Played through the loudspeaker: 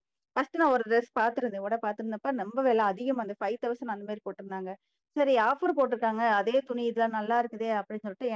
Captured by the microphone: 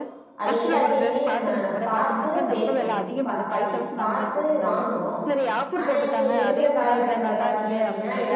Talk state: both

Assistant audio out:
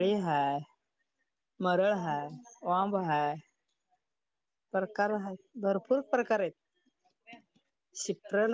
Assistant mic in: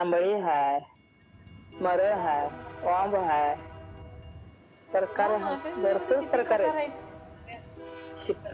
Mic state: both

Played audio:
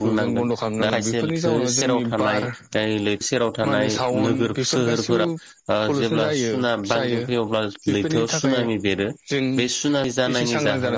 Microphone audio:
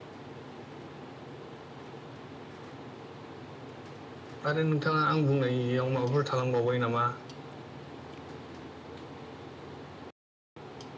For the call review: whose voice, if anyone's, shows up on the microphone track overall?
user only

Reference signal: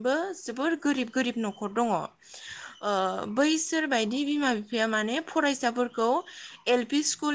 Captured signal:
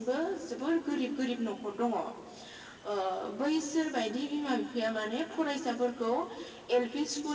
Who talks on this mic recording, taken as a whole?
echo only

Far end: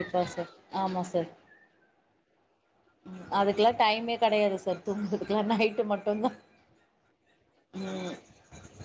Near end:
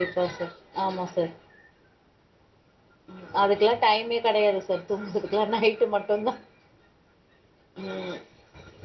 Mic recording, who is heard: echo only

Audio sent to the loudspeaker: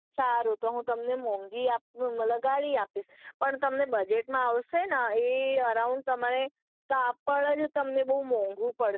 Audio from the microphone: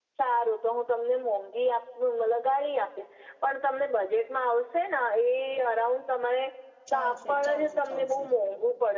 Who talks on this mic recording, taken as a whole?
both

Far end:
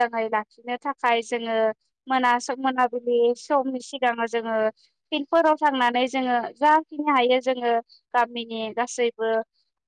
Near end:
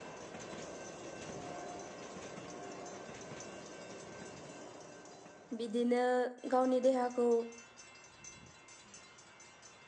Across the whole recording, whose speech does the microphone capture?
user only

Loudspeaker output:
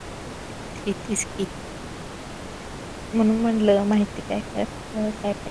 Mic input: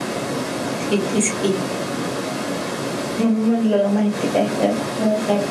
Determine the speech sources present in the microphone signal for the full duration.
echo only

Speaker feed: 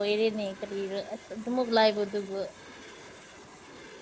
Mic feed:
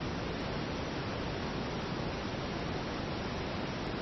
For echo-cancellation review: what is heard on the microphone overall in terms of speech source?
neither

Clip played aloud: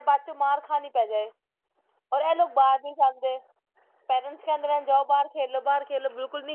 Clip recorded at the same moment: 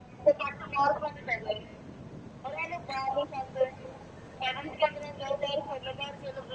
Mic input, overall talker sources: echo only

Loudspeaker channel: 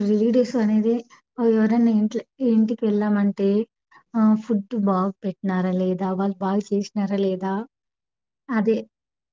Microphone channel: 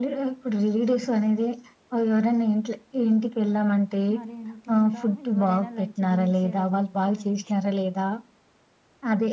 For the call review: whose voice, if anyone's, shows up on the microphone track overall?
both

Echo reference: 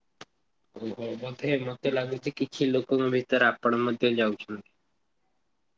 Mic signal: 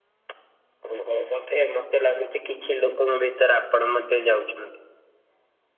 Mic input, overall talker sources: echo only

